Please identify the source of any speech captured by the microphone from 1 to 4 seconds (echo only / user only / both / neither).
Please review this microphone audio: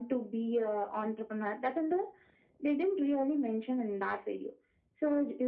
echo only